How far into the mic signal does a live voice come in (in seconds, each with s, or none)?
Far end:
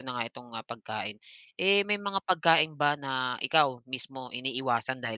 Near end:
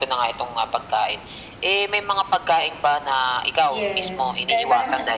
3.7 s